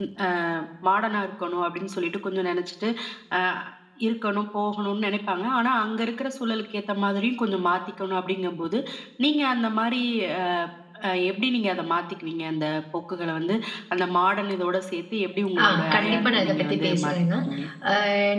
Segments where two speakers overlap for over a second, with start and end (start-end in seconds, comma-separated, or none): 15.6-17.1